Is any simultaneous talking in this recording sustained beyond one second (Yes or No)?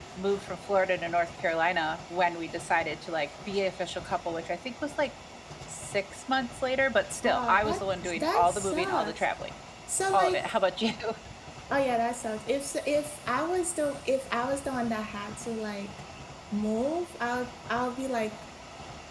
Yes